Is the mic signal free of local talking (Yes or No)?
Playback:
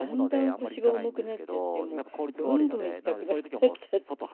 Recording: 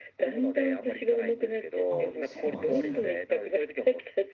No